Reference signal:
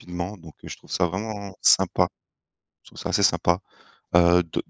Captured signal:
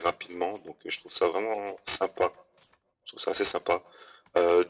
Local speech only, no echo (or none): none